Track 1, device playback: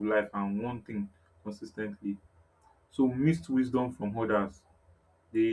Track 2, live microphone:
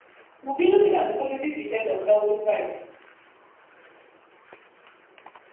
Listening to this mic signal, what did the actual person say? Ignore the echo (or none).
we'll be looking at the positive effect of healthy pride.